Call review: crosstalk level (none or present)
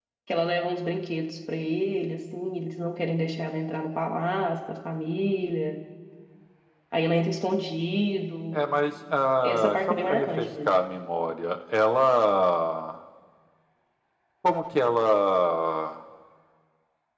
present